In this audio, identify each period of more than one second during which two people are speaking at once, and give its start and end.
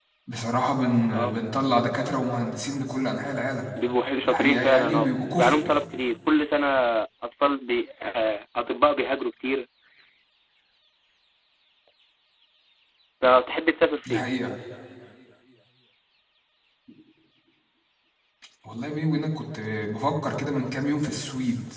4.2-5.7

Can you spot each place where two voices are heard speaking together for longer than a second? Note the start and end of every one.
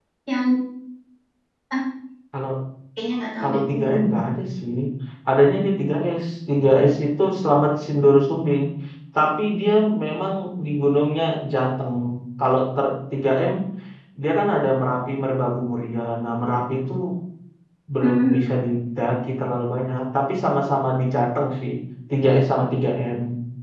none

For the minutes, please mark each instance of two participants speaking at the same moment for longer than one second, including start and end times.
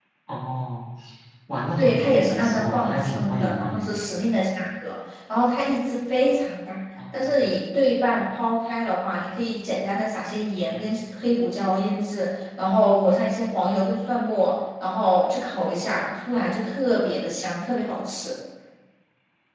1.8-4.0

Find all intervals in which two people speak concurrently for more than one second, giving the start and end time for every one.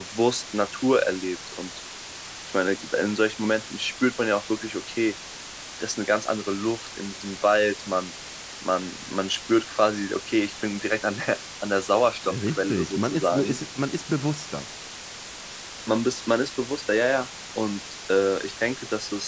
12.2-13.6

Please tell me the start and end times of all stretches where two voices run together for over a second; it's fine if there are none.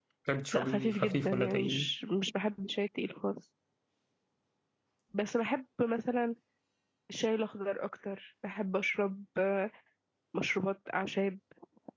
0.5-1.9

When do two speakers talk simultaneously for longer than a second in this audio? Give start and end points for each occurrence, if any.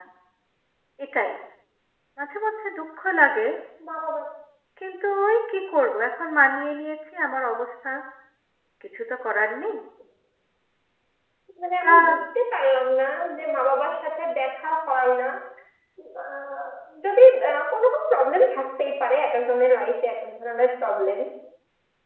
none

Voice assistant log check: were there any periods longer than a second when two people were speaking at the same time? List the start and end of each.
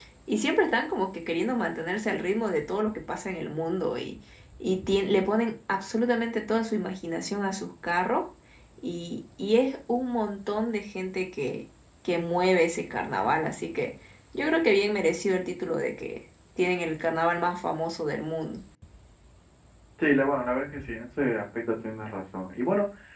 none

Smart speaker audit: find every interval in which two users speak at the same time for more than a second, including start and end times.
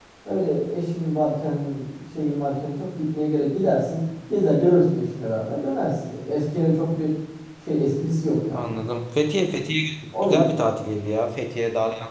none

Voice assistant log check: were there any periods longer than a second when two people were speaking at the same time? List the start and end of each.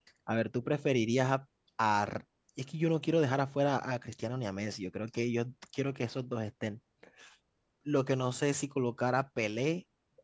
none

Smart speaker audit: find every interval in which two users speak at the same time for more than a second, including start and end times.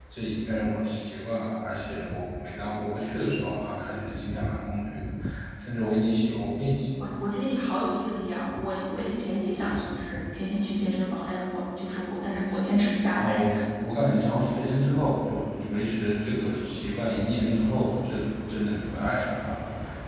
none

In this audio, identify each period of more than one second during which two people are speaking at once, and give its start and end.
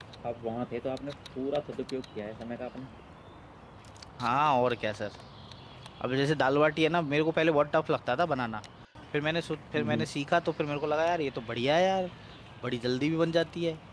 none

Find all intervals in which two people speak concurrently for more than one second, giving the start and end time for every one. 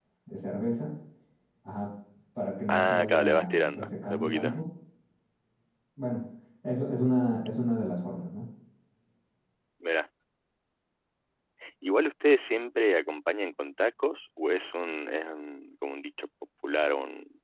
2.7-4.5

